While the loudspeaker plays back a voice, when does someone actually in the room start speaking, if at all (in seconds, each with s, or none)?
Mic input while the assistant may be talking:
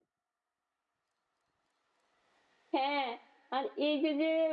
2.8 s